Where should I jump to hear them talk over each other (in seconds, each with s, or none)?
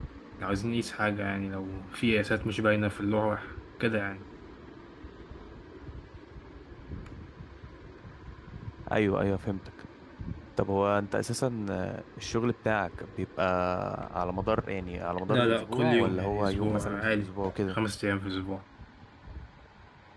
15.3 s